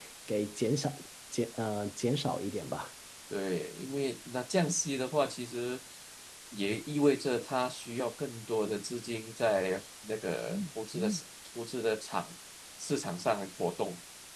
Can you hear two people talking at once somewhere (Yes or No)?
No